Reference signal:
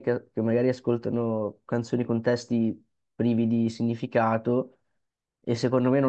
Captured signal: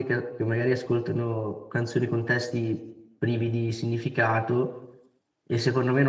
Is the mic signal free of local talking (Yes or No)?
Yes